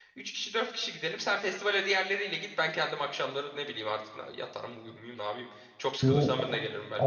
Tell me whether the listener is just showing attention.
No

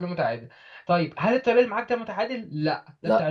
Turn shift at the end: No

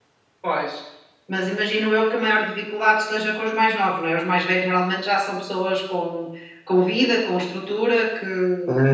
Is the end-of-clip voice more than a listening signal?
Yes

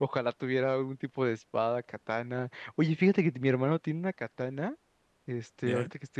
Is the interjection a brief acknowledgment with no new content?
Yes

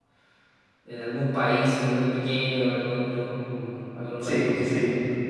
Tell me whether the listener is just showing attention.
No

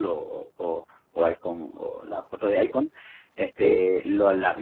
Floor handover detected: No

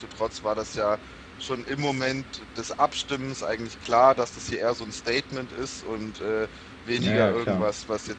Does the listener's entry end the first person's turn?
No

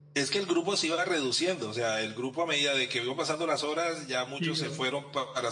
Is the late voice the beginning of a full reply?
No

